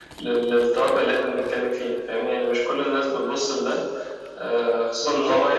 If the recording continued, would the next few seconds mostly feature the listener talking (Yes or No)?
No